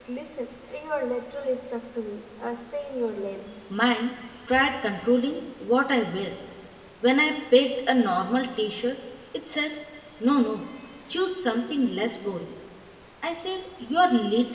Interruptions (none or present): none